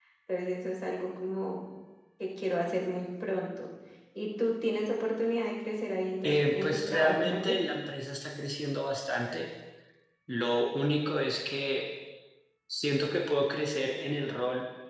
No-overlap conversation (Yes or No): No